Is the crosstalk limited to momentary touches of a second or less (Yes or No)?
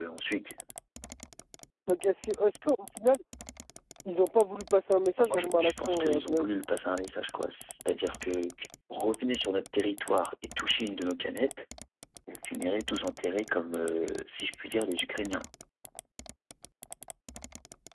No